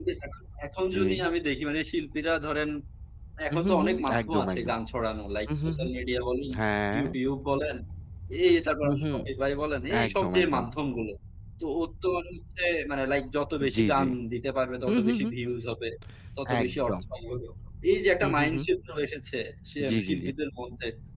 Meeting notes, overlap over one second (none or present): present